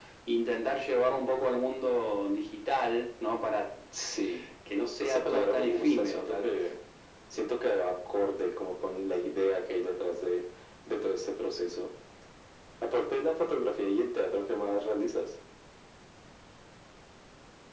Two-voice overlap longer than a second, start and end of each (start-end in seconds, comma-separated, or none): 5.0-6.5